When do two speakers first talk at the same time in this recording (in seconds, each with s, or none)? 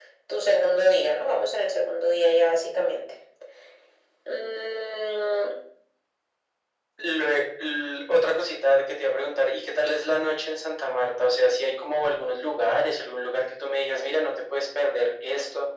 none